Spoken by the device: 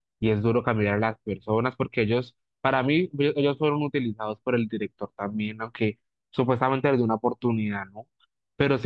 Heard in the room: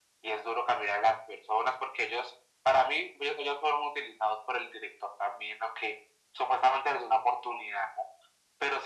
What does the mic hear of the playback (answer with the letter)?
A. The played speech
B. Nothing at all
A